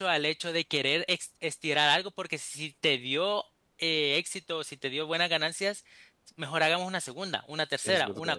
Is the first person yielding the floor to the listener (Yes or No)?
No